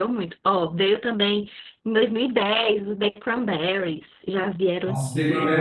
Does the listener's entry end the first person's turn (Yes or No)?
Yes